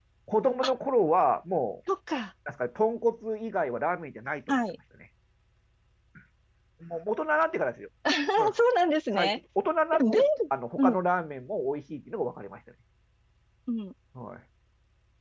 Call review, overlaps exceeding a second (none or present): none